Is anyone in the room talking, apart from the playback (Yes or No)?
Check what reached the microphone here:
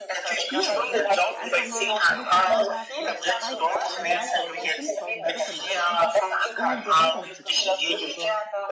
Yes